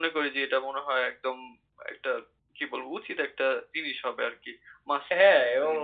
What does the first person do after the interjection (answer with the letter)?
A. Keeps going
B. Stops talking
B